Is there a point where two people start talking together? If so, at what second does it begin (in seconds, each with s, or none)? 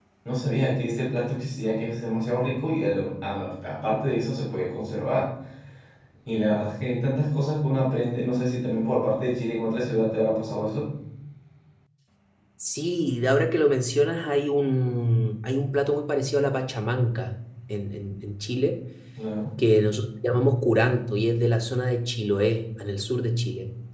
none